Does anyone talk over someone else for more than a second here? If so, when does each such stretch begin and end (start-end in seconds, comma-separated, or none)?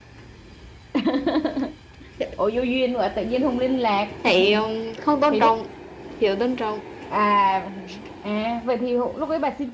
none